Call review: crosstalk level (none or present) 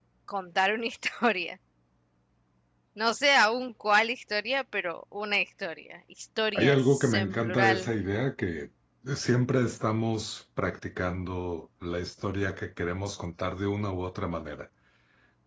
present